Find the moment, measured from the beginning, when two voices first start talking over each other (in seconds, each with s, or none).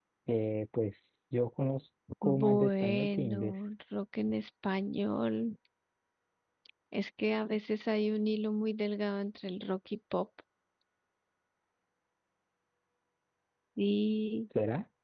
2.2 s